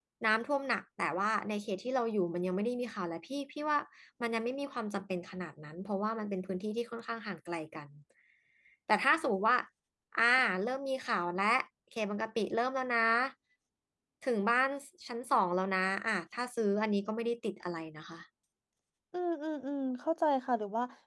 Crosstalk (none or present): none